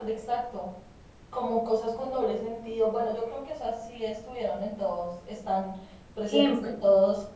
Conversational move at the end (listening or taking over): listening